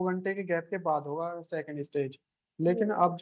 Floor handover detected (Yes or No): No